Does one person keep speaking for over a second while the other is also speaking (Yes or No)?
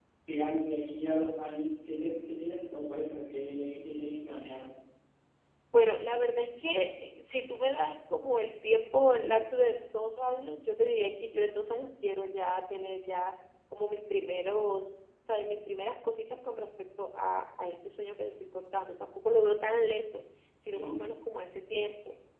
No